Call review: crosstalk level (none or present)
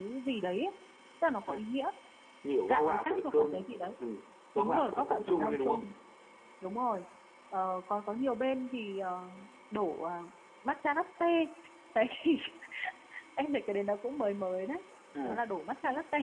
present